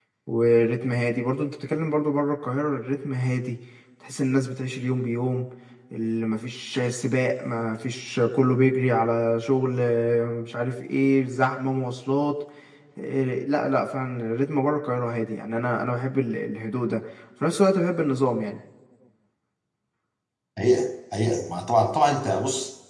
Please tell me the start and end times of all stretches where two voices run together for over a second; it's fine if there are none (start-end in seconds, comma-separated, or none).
none